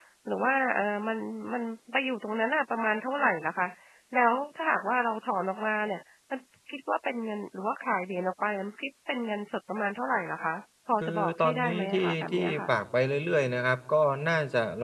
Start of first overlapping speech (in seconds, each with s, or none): 11.0 s